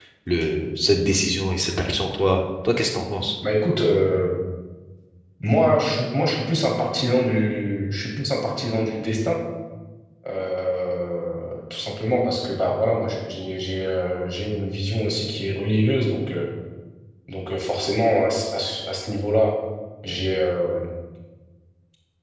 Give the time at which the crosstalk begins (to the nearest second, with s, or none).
none